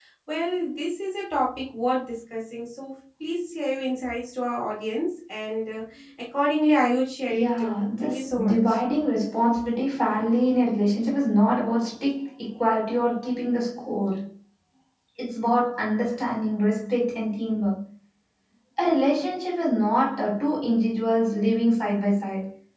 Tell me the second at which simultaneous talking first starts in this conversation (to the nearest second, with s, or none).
7 s